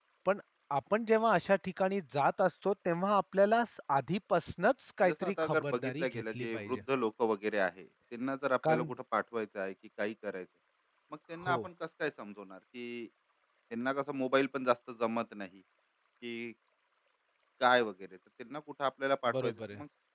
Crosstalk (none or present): present